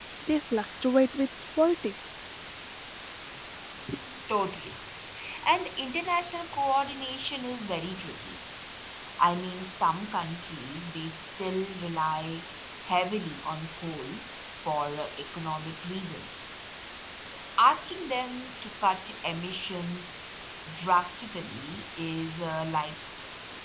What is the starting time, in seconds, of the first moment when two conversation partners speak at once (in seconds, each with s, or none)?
none